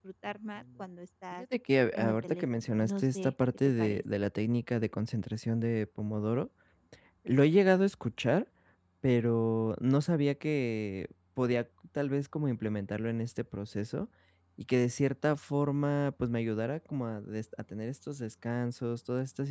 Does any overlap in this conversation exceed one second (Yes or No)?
Yes